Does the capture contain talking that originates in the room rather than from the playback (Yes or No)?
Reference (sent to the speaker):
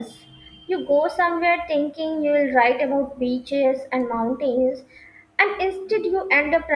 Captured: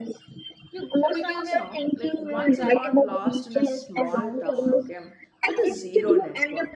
Yes